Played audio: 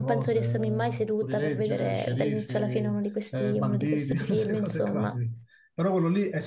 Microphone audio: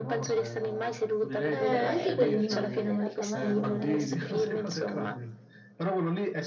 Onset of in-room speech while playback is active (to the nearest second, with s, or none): 2 s